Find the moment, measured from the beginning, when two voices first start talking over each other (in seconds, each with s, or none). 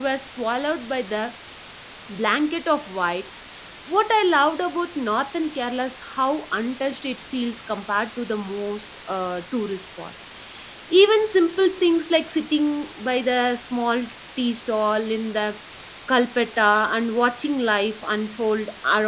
none